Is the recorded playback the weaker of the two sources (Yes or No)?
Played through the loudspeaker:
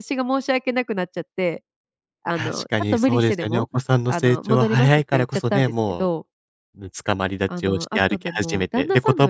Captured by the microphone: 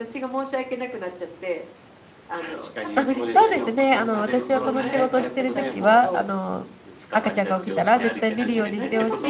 Yes